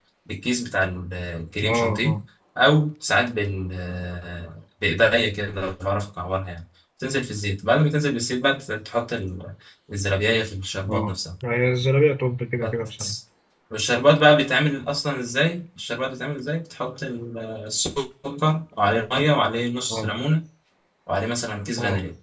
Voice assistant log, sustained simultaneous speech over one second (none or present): none